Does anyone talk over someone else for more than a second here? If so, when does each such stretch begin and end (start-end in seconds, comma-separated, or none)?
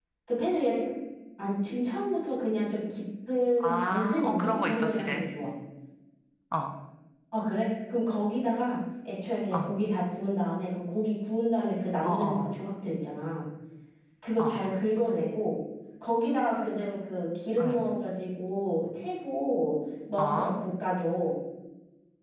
3.6-5.2